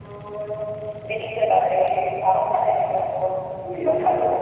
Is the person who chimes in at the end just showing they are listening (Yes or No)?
No